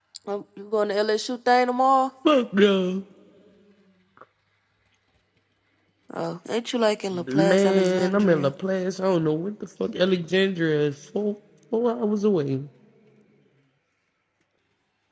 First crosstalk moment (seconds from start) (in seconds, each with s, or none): 7.1 s